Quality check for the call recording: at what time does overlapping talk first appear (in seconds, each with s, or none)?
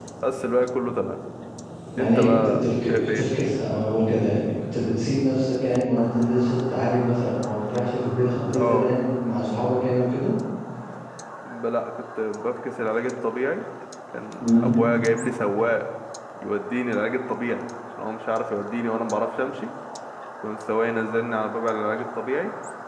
2.0 s